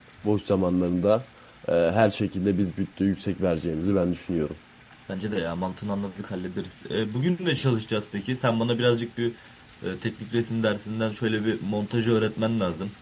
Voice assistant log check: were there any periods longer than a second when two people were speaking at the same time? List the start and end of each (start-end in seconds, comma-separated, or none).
none